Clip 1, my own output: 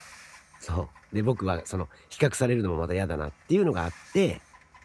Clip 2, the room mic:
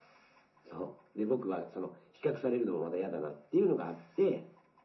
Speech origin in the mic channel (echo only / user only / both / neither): echo only